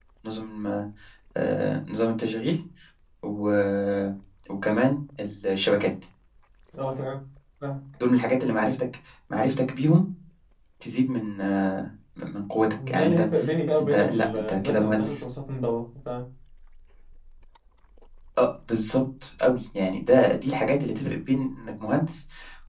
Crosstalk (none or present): present